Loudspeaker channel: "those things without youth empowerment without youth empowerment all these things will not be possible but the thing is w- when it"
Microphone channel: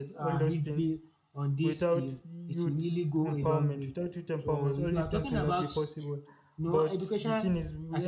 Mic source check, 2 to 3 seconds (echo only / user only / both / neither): both